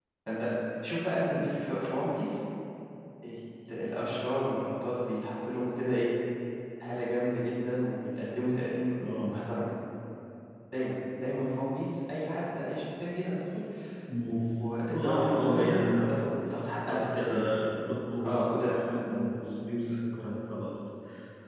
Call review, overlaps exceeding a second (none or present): present